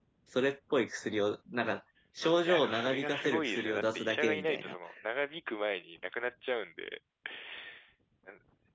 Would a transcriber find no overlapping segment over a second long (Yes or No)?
No